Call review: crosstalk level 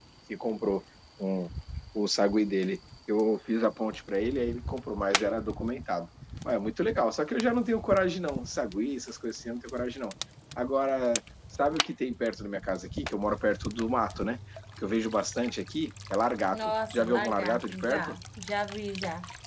present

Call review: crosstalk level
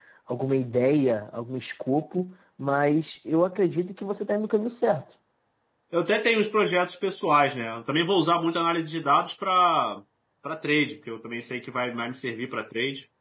none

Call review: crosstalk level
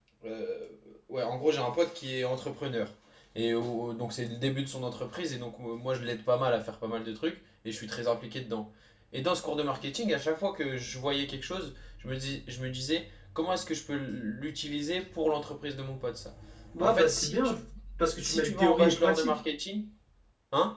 present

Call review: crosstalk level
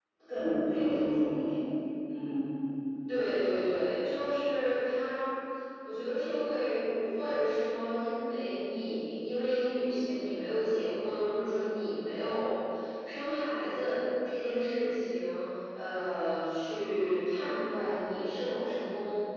none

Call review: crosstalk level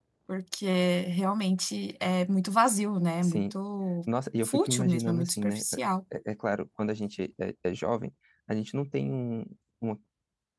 present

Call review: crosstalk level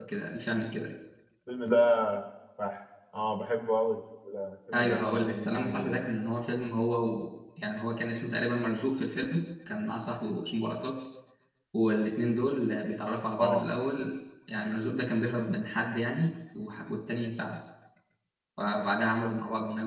present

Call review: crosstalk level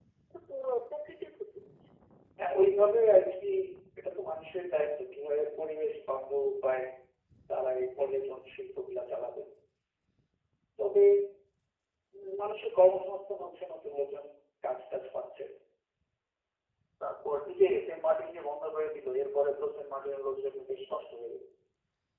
none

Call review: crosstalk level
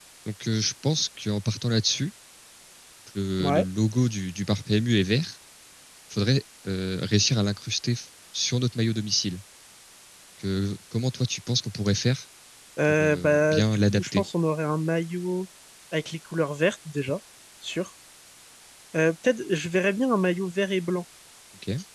present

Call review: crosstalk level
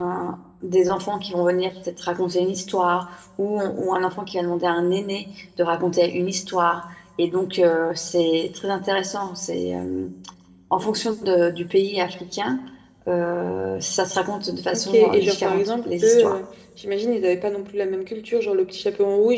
present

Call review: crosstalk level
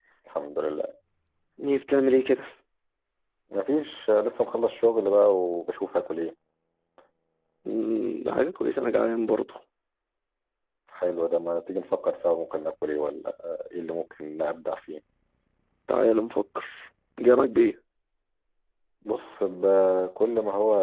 none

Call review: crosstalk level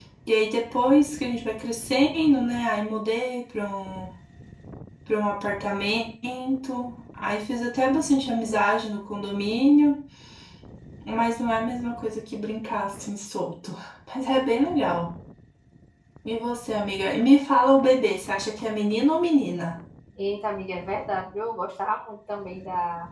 none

